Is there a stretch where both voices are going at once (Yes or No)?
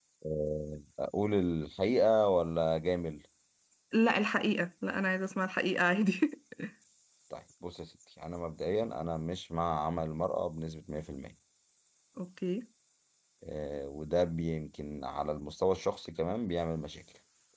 No